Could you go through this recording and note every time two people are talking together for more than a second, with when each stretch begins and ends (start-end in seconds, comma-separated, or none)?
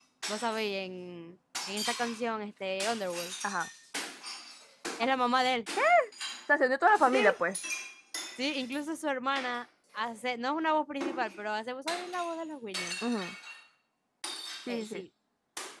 none